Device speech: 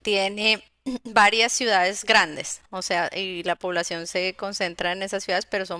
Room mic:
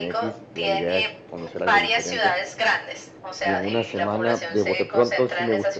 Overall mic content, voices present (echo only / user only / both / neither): both